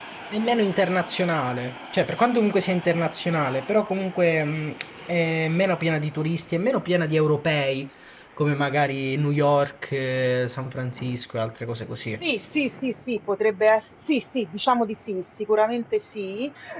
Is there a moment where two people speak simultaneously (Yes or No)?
No